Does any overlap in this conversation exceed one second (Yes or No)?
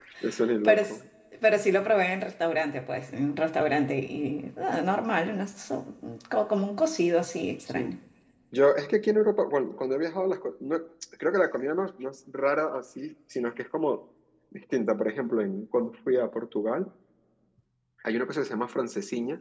No